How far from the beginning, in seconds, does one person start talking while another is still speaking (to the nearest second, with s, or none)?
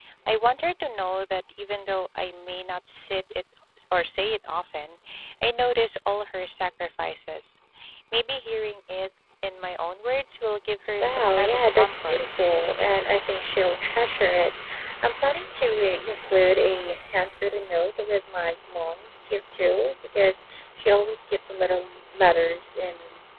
11 s